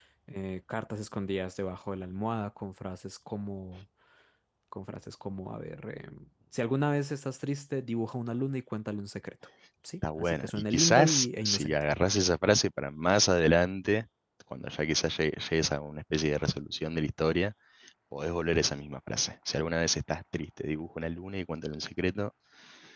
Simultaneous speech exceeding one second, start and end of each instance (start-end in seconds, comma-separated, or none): 10.2-11.8